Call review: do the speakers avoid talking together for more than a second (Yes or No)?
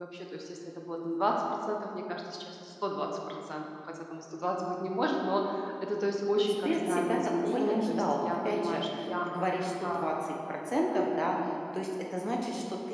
No